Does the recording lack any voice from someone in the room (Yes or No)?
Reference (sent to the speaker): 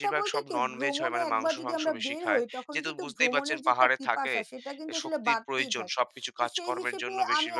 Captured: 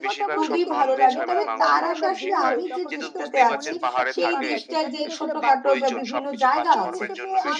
No